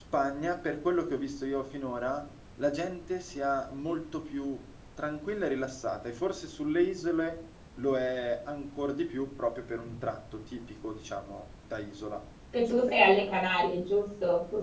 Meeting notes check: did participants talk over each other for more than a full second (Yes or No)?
No